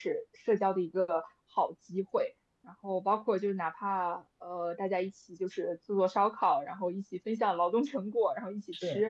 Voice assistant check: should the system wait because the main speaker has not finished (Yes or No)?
Yes